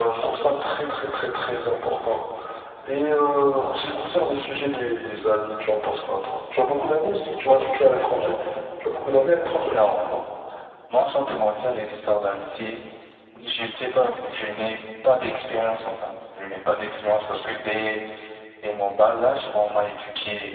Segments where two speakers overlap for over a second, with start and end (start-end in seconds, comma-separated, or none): none